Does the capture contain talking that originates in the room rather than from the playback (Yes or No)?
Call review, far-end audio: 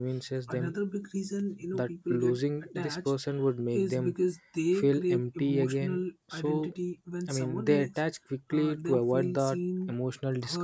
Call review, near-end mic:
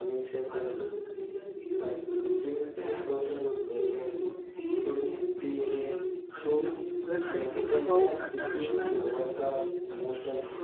Yes